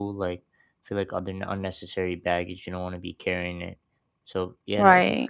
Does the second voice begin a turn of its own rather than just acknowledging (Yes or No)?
No